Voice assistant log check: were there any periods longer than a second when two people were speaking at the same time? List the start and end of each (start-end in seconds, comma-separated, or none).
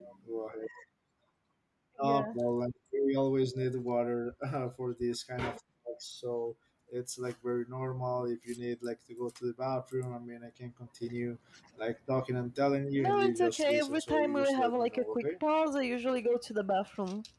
12.9-15.2